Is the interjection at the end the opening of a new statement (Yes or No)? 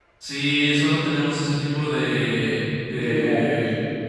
No